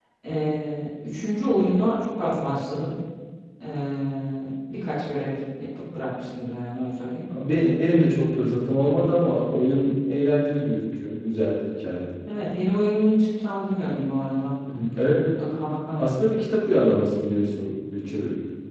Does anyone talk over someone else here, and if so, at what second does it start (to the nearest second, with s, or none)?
none